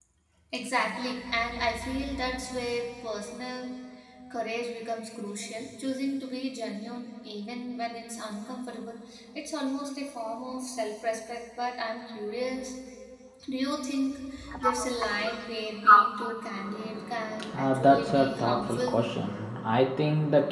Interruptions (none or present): present